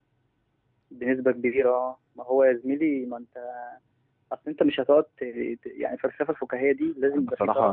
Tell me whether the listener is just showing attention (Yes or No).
No